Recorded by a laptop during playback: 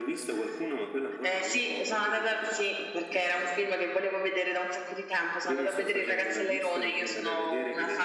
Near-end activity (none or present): none